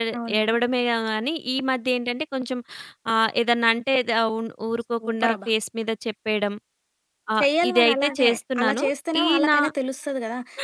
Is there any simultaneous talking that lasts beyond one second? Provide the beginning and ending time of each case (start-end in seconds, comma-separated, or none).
7.4-8.8